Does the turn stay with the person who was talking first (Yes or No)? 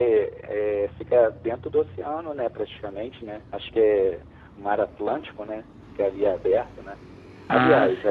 Yes